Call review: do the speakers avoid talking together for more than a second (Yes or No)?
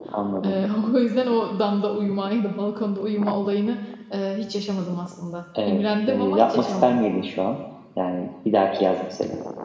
No